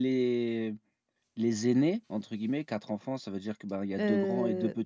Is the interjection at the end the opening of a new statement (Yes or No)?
Yes